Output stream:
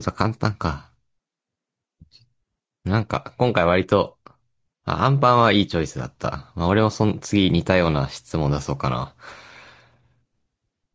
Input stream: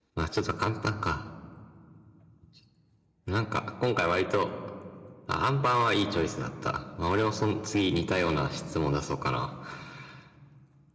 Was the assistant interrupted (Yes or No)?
No